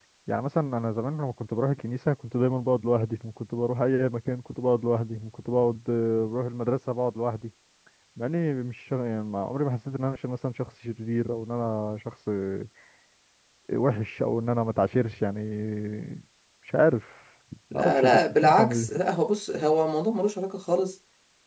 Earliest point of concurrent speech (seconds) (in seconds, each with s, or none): 17.8 s